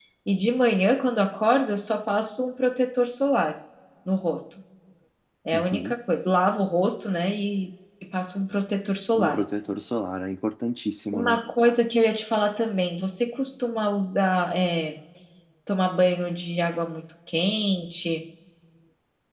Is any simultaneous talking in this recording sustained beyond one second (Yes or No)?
No